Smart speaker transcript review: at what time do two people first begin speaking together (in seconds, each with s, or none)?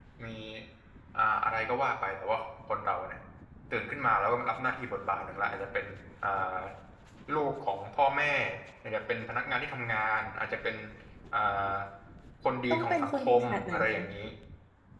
12.7 s